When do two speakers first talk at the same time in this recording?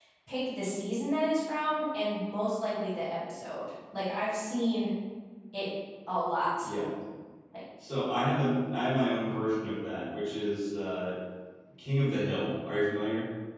none

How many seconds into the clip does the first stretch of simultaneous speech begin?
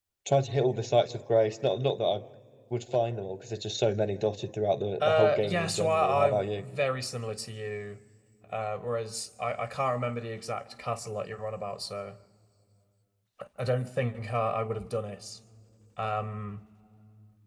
5.0 s

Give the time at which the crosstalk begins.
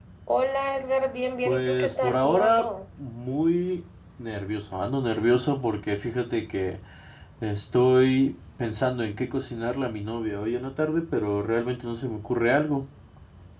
1.4 s

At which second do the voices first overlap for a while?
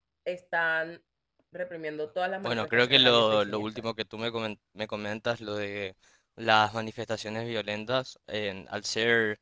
2.4 s

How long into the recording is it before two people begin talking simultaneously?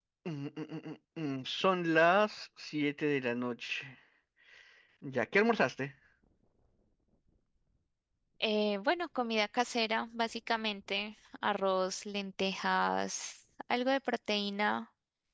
none

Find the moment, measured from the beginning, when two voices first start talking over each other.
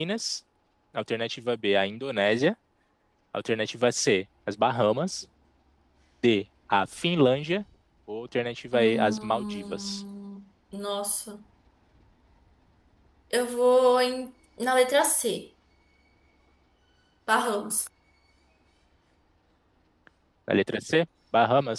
8.7 s

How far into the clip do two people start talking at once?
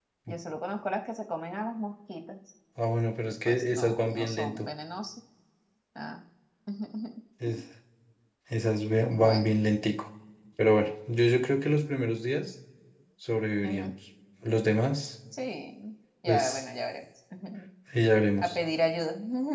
3.5 s

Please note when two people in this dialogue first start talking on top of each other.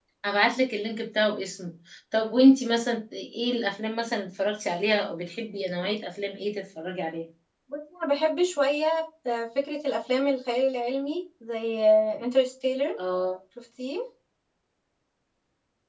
none

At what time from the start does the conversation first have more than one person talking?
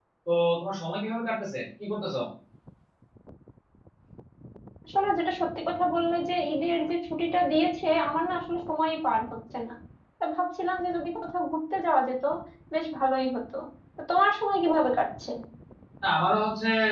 none

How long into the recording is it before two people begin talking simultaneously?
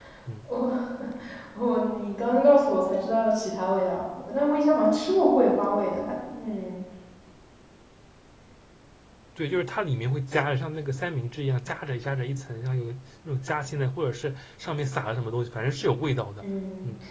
none

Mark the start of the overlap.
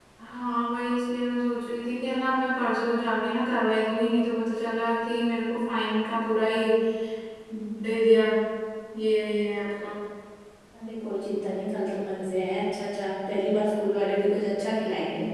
none

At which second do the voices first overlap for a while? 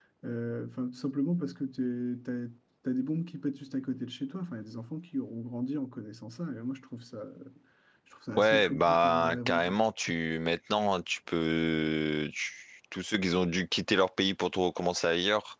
8.4 s

